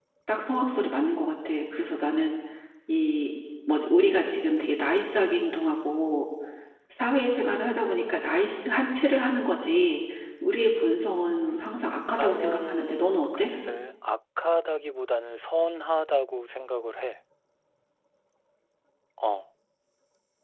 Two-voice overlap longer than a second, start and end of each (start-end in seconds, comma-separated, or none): 12.2-13.5